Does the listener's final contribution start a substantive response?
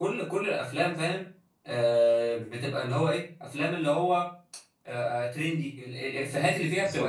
No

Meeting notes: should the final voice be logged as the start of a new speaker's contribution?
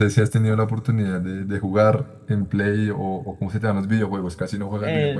Yes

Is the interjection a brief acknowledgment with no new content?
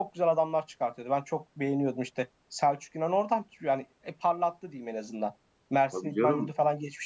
Yes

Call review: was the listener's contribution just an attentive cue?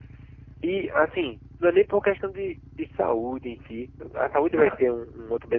Yes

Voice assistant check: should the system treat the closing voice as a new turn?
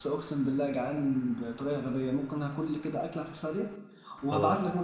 No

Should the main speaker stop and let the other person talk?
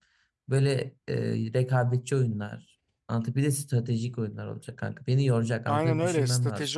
Yes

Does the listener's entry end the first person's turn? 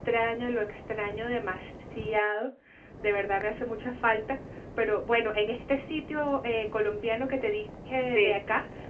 No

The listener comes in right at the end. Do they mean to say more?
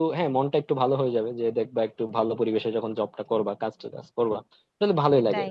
No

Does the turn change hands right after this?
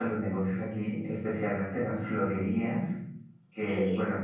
No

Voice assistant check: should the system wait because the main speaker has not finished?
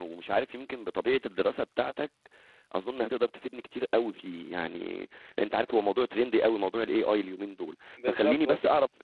Yes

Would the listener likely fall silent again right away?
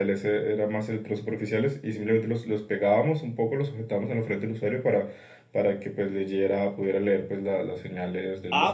No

